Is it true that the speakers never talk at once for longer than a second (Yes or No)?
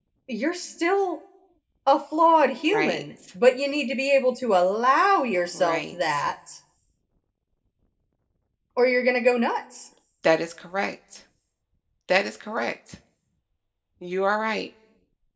Yes